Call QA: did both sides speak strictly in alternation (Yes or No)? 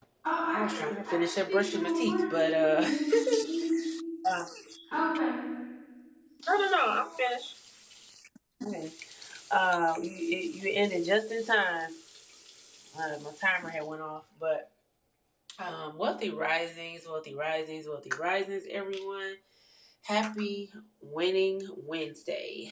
No